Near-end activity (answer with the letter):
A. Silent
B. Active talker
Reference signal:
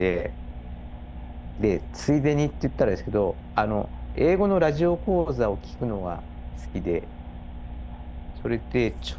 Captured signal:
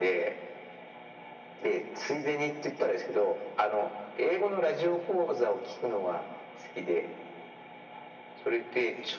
A